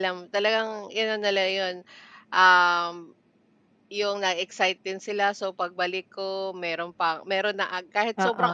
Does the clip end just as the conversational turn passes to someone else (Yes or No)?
No